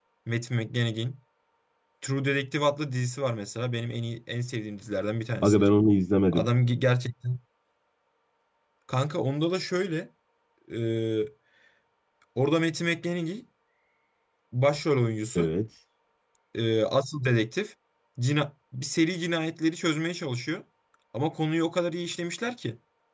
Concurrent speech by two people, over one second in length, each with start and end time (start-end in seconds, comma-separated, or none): none